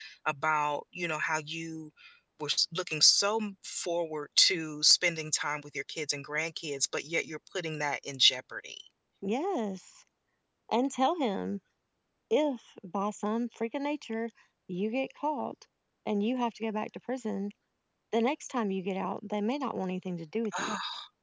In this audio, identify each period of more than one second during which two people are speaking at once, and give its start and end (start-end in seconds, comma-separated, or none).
none